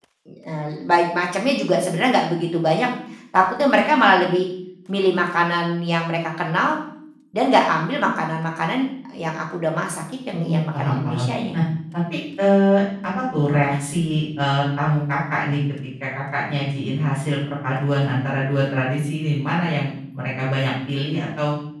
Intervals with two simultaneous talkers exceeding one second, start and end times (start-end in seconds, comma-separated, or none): 10.3-11.6